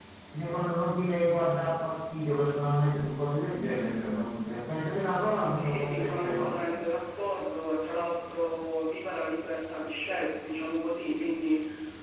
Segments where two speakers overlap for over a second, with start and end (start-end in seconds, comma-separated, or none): 5.6-6.8